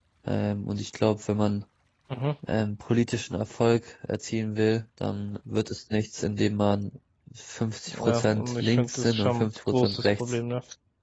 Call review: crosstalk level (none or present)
present